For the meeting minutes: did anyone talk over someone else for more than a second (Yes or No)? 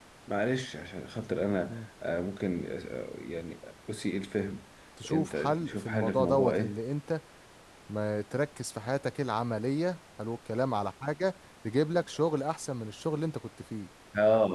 Yes